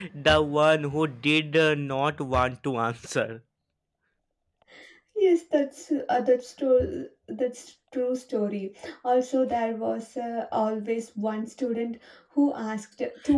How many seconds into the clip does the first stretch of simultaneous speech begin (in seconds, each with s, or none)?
none